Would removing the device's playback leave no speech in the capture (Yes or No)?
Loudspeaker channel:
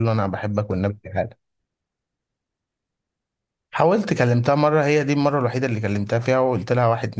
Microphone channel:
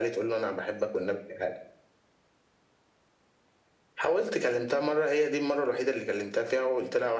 Yes